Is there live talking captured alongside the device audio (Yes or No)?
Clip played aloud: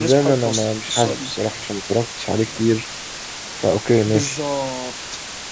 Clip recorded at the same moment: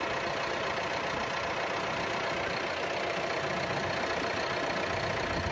No